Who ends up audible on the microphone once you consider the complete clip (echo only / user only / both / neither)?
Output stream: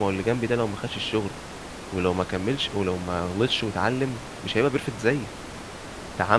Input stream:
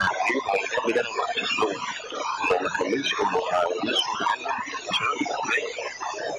echo only